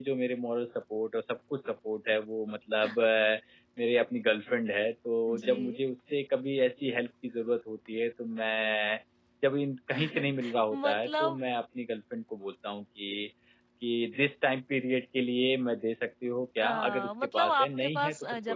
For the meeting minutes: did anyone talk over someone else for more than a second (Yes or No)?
Yes